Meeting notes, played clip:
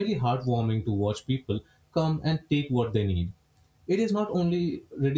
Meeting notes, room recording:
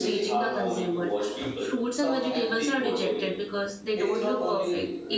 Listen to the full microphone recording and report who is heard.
both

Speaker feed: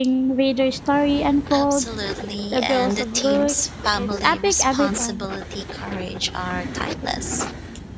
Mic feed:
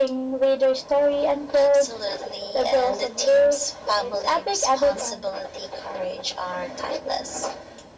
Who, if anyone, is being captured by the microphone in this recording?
echo only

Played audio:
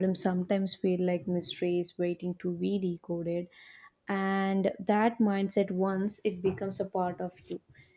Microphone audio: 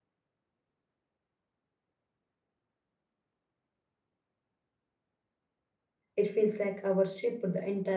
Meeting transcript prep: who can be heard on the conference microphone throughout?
user only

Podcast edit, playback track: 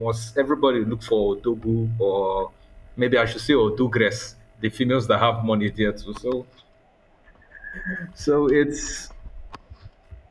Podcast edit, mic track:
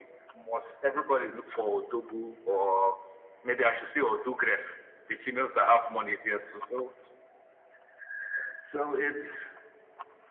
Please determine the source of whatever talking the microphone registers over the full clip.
echo only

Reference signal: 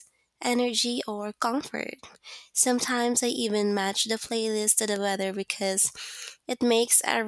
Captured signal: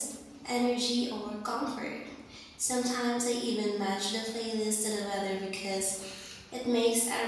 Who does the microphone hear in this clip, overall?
echo only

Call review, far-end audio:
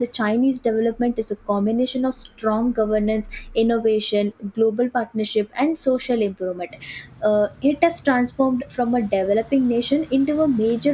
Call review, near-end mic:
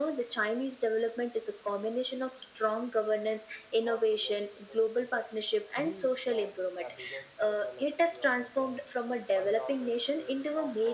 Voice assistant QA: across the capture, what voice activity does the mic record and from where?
both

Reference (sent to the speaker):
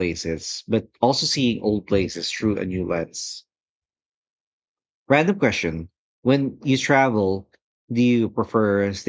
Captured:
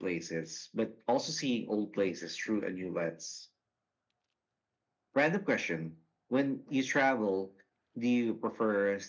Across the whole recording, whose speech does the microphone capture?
echo only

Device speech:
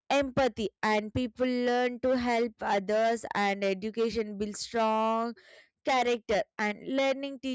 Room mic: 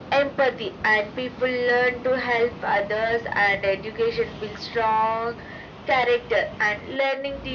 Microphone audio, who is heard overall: echo only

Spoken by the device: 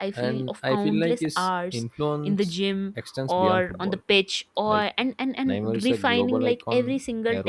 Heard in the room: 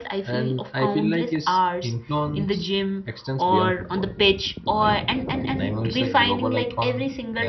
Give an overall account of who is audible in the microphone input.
echo only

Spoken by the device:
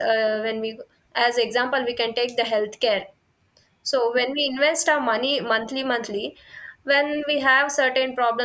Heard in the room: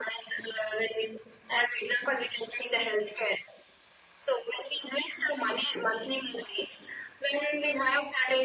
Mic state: echo only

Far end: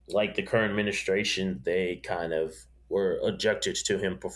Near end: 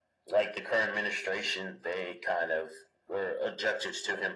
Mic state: echo only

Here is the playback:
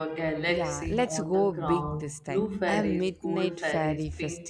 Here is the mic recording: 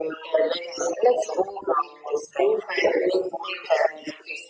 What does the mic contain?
echo only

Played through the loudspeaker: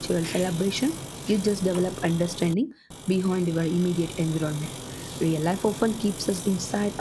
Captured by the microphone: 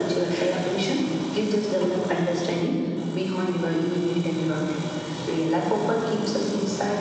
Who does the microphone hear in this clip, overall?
echo only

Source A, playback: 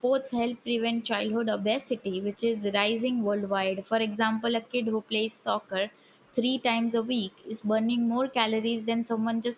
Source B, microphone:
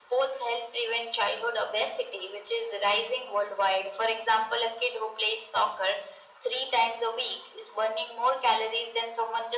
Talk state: echo only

